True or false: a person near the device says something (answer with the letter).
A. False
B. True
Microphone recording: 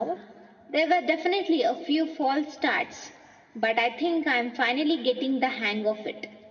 A